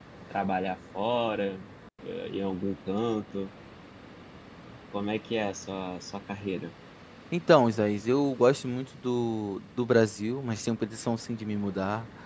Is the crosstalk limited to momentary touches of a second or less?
Yes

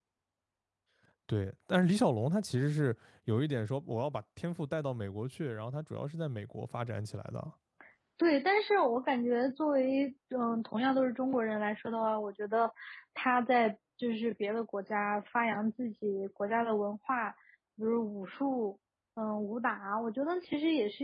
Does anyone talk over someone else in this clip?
No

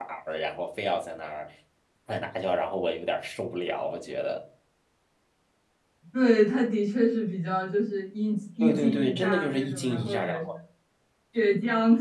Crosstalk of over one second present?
Yes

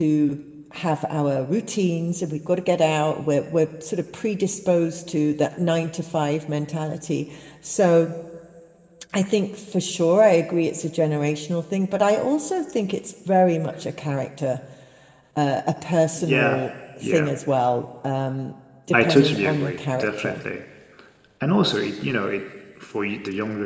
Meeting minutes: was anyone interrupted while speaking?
Yes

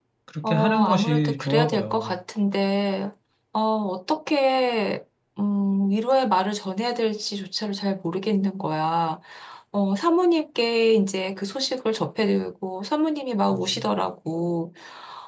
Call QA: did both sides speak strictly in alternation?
No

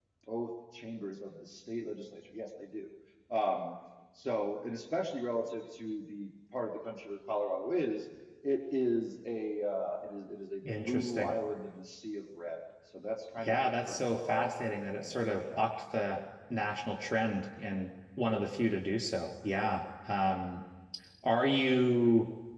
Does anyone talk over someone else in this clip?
Yes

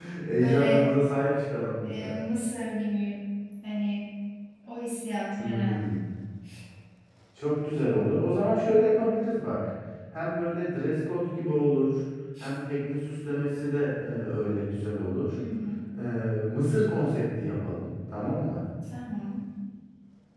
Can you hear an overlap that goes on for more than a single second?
No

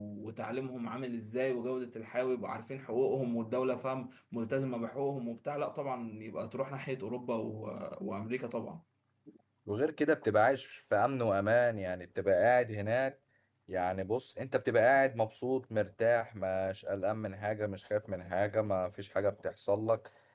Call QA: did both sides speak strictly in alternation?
Yes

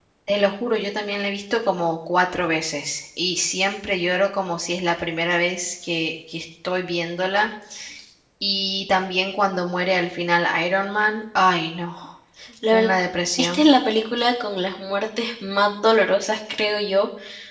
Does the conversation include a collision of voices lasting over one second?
No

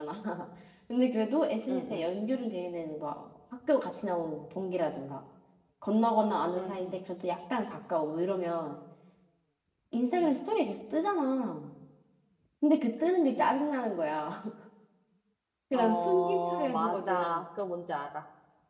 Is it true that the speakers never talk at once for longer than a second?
No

